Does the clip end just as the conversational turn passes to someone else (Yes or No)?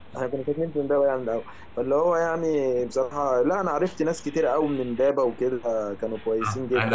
Yes